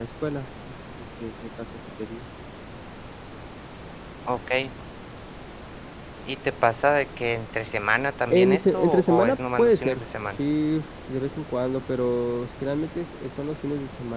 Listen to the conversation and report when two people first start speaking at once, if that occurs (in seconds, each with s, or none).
8.3 s